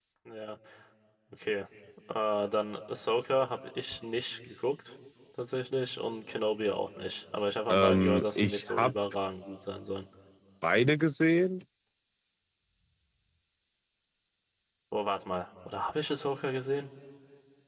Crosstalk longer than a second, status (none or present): present